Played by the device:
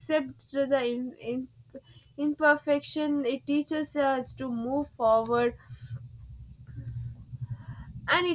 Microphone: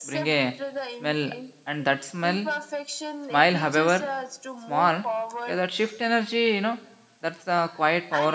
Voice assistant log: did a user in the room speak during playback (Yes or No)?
Yes